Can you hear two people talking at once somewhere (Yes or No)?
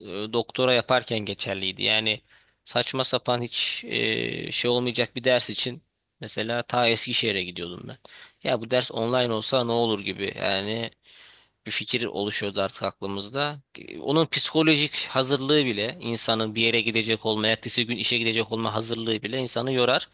No